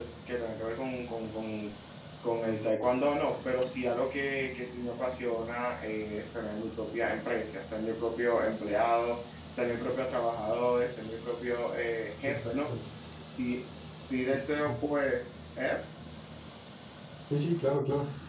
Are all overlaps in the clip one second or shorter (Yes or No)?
Yes